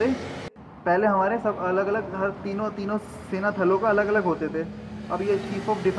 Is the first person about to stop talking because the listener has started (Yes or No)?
No